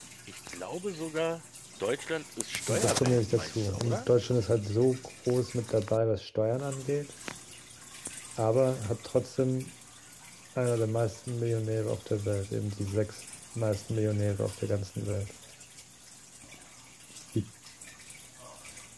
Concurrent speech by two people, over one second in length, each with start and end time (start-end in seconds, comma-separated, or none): 2.7-4.1